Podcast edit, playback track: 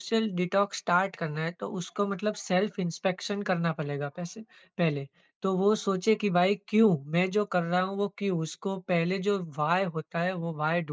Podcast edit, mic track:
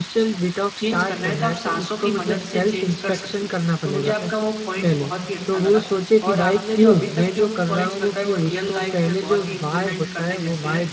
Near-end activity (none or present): present